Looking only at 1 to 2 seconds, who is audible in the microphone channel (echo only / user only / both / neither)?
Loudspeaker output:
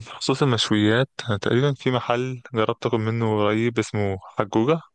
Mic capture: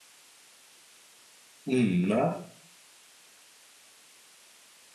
user only